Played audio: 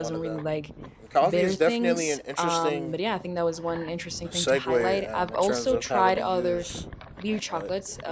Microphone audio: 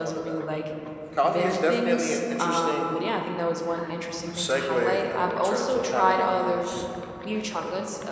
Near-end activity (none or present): none